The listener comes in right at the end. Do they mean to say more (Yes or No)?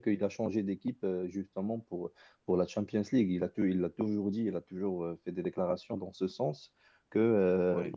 No